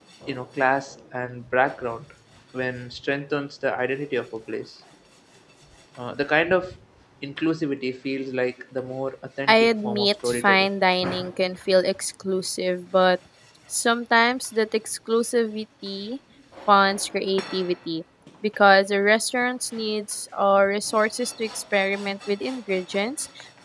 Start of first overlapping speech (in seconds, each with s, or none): 9.5 s